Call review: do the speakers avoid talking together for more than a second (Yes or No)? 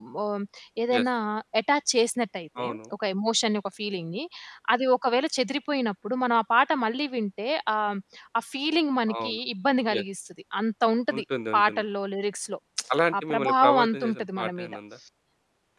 No